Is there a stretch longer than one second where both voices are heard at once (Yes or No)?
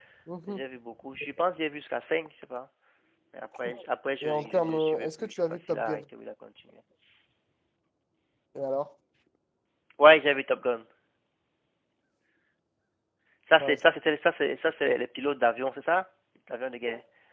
Yes